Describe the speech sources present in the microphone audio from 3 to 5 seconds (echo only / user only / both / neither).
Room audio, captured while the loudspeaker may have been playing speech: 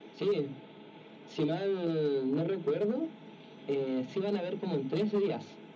echo only